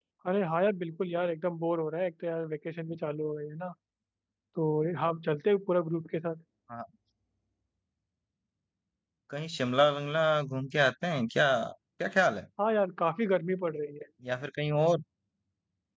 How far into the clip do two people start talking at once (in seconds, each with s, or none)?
none